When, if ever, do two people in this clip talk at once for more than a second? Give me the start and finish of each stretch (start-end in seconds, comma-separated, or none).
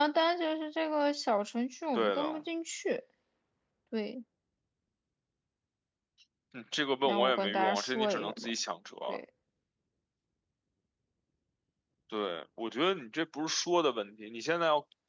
7.0-8.5